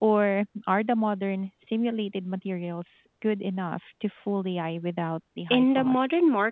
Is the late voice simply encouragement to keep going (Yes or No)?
No